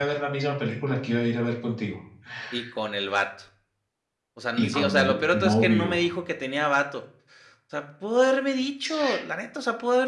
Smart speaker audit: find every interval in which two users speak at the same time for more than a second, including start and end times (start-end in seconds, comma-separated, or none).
4.6-6.0